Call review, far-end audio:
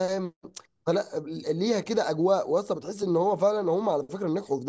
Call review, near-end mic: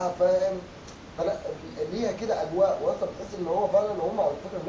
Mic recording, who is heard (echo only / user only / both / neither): echo only